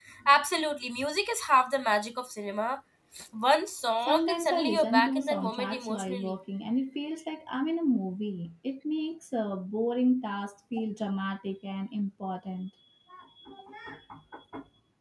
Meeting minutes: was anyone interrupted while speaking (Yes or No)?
Yes